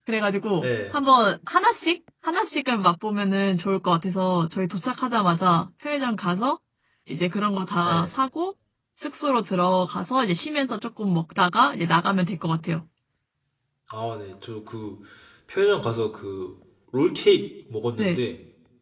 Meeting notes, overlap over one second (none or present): none